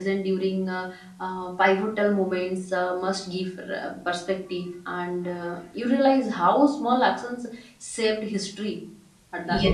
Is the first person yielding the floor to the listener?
Yes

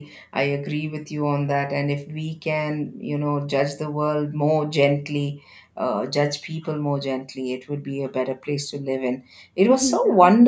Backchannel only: Yes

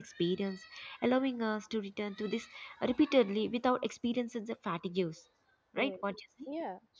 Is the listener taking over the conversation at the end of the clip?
Yes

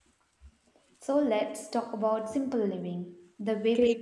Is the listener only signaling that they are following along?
No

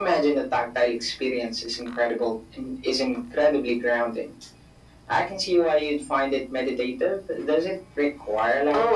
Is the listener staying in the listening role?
No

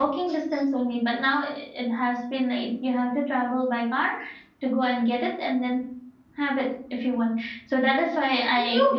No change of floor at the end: No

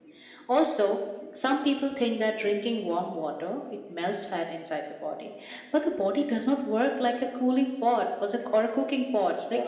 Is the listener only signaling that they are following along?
Yes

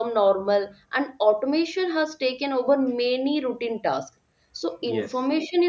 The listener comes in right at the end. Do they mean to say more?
No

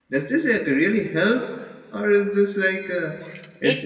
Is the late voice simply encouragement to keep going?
Yes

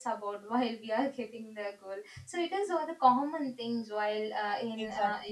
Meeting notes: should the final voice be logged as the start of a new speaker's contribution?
Yes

